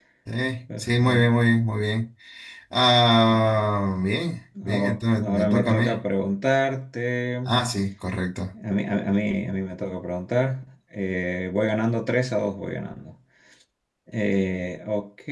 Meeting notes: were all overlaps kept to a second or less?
No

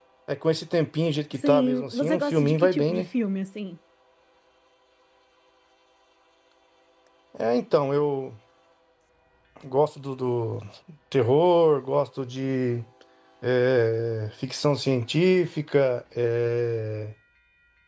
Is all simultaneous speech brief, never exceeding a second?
No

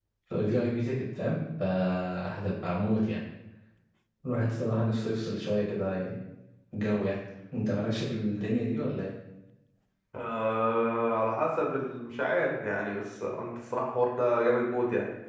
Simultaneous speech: No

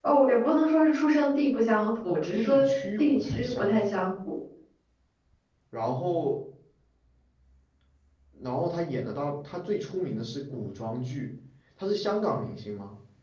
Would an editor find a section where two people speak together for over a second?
Yes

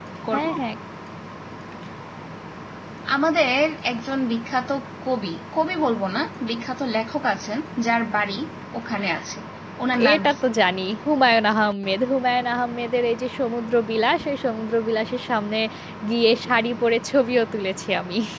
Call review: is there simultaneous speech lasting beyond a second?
No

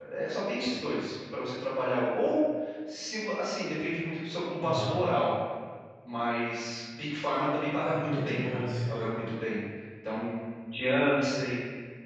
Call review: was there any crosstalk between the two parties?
Yes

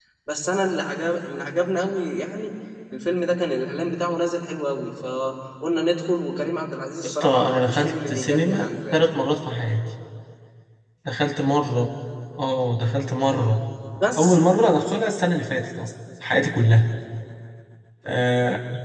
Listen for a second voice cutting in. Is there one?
Yes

